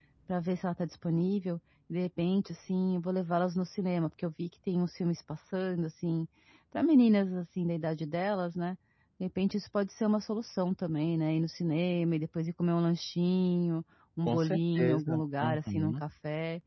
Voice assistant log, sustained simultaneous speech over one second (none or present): present